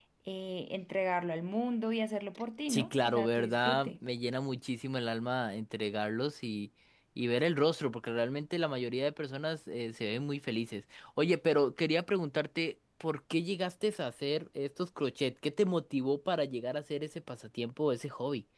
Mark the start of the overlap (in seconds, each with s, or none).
2.7 s